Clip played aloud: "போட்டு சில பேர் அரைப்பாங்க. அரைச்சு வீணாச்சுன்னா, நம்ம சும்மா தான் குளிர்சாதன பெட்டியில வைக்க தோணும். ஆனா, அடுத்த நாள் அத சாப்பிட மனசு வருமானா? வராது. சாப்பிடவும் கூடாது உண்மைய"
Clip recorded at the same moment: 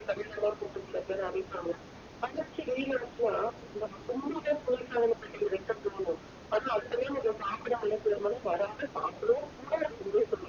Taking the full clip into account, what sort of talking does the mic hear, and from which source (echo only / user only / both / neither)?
echo only